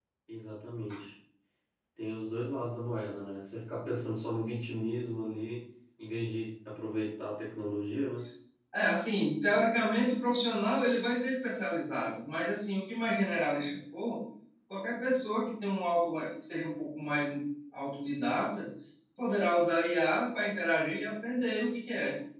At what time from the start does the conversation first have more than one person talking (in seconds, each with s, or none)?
none